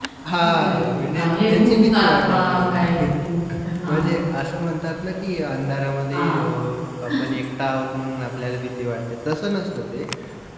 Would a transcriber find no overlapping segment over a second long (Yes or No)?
No